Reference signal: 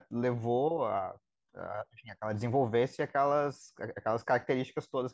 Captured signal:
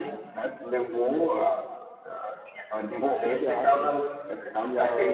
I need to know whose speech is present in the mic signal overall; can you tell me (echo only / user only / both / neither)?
both